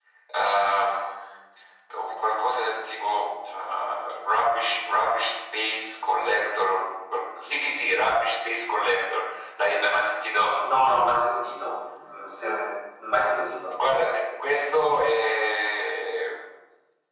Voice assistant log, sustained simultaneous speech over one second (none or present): none